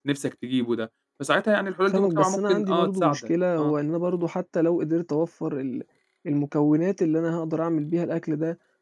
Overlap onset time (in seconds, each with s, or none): 1.9 s